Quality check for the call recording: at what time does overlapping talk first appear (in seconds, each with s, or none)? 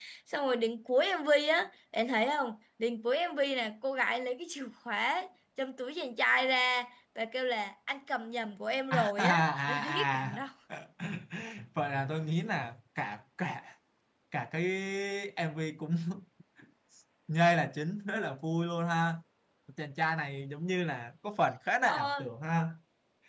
8.9 s